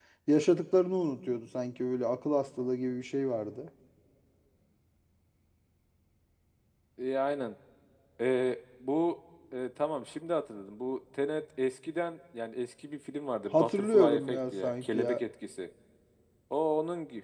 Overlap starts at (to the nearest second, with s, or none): 14 s